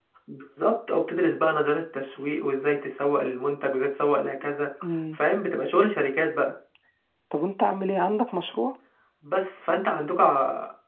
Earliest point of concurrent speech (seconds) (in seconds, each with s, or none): none